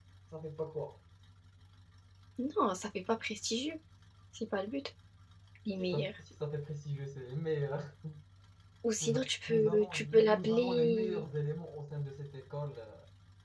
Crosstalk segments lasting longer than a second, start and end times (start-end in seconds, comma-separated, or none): 9.0-11.2